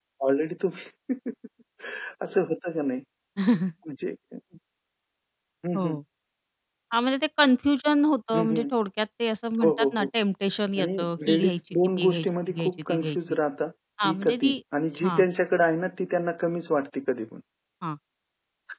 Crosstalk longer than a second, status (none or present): present